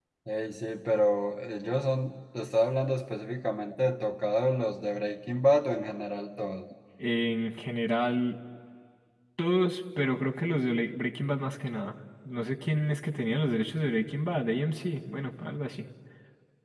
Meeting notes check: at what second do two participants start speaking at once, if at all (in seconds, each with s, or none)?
none